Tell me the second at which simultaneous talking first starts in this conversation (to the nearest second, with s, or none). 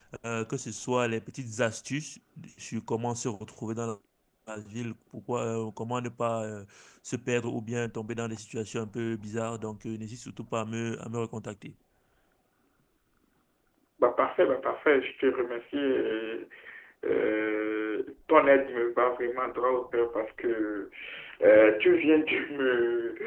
none